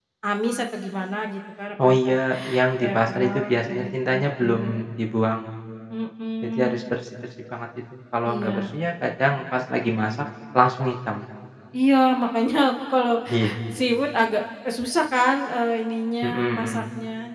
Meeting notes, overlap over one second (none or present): present